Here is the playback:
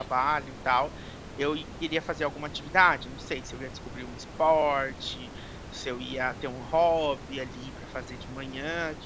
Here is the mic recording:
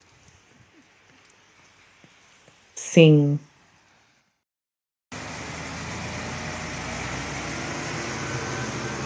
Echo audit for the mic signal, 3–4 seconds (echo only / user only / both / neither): user only